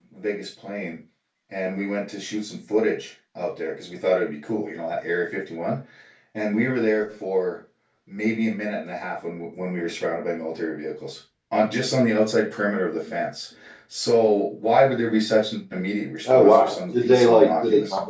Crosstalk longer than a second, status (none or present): present